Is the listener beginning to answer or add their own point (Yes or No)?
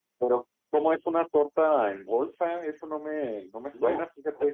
Yes